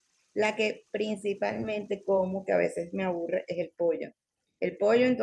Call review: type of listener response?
listening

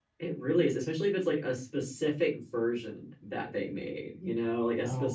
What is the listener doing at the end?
listening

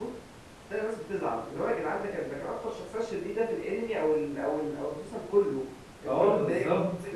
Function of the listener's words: taking over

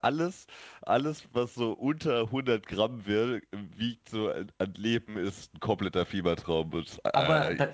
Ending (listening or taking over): taking over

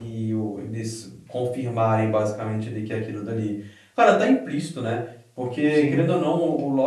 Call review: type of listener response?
listening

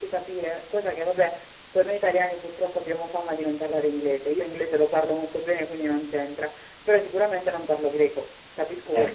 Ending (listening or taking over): listening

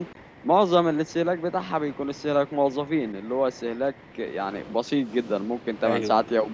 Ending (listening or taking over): listening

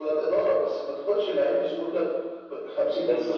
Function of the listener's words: taking over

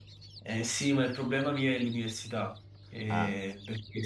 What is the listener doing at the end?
listening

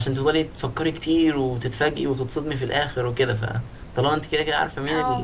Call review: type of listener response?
listening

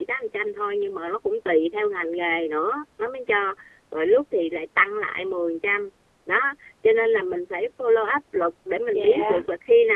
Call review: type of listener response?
listening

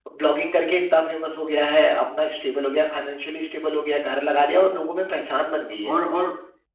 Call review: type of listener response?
taking over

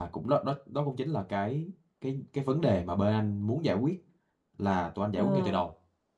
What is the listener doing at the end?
listening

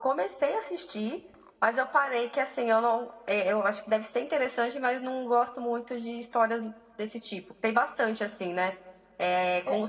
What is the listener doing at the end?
listening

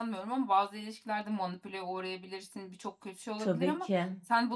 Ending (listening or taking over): listening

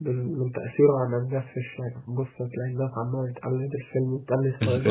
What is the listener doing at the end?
taking over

